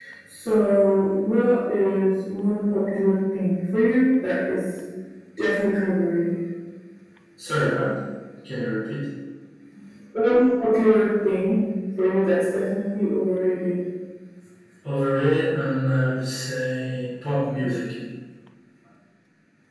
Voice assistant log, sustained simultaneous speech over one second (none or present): none